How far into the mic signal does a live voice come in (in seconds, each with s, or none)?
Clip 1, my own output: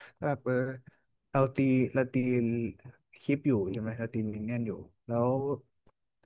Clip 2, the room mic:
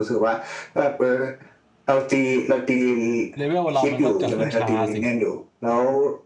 3.4 s